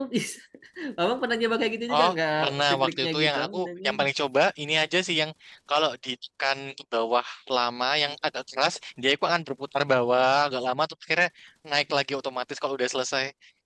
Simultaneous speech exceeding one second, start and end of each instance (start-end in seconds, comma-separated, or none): 1.9-4.0